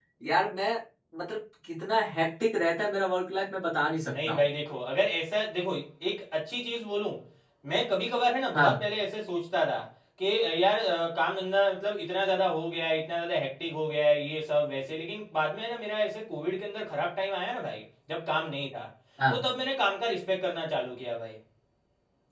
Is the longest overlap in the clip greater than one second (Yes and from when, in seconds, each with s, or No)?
No